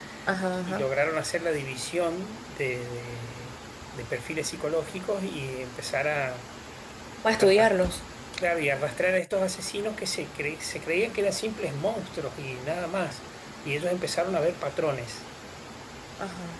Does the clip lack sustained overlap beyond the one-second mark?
Yes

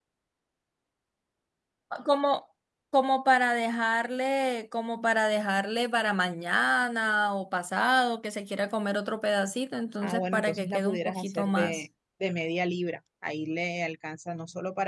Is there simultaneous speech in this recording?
Yes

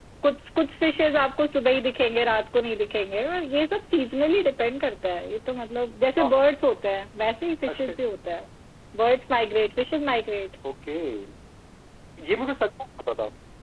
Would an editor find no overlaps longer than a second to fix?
Yes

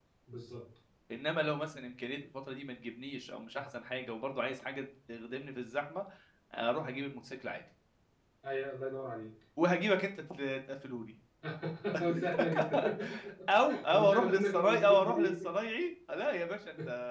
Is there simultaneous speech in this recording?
Yes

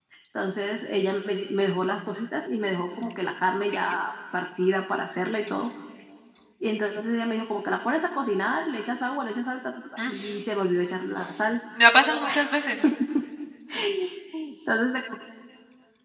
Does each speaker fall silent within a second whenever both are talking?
Yes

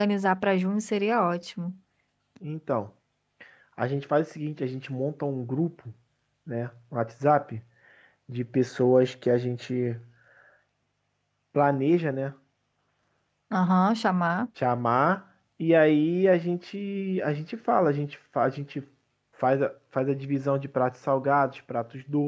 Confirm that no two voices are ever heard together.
Yes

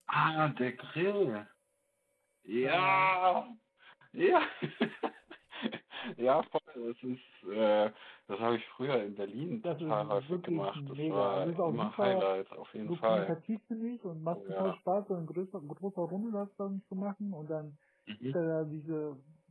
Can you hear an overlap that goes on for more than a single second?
Yes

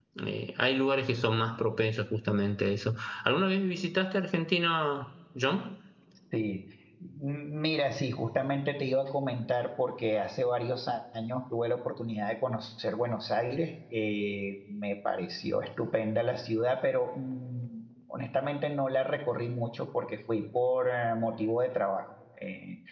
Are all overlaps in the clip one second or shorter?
Yes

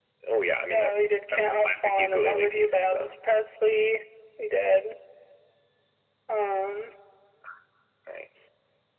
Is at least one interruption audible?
Yes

